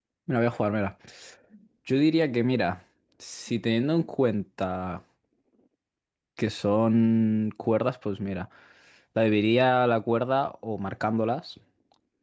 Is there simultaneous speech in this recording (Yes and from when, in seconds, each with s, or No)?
No